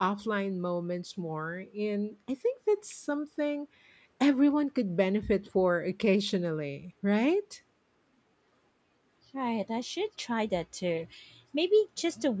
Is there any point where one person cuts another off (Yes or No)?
No